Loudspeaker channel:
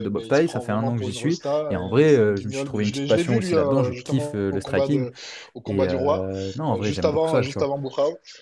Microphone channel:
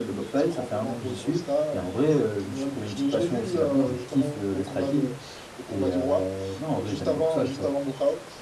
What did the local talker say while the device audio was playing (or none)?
none